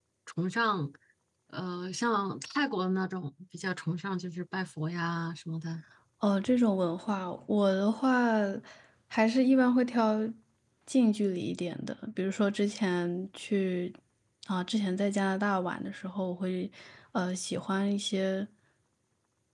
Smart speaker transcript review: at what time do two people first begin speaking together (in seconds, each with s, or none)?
none